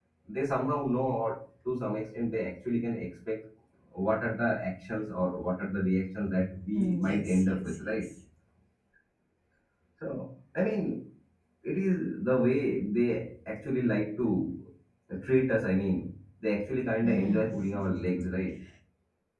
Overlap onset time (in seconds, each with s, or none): 6.8 s